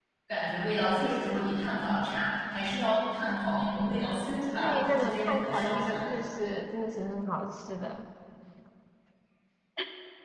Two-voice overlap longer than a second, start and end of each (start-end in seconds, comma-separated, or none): 4.6-6.1